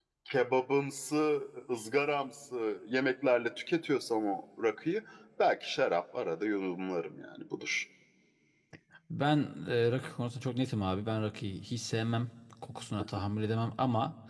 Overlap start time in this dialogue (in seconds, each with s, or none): none